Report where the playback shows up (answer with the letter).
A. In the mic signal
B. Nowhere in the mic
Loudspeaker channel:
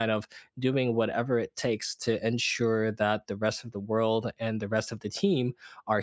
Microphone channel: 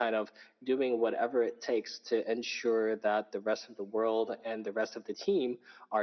A